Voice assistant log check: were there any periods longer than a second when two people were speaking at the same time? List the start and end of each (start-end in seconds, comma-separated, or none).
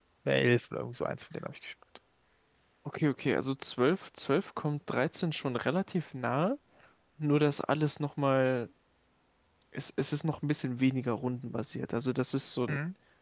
none